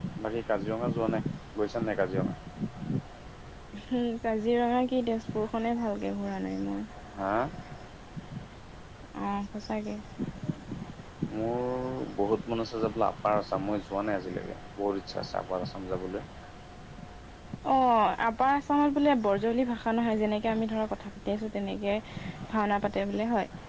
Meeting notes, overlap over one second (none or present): none